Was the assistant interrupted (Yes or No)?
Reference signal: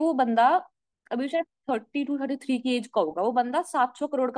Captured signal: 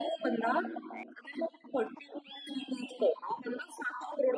No